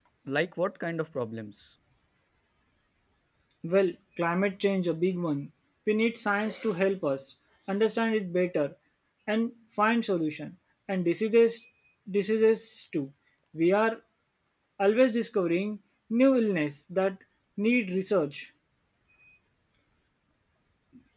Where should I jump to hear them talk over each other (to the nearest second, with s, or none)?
none